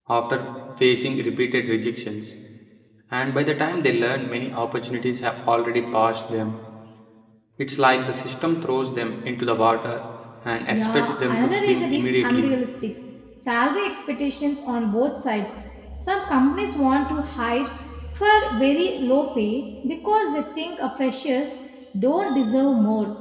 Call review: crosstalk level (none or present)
present